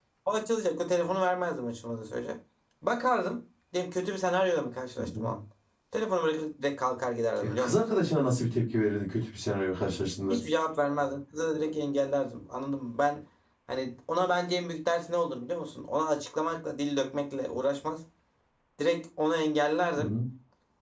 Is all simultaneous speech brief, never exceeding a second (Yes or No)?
Yes